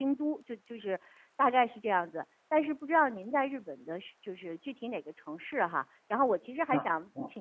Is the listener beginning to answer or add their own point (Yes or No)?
No